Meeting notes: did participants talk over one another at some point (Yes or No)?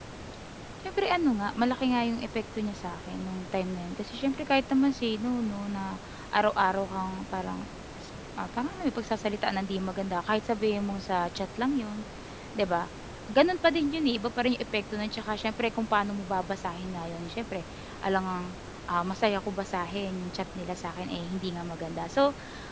No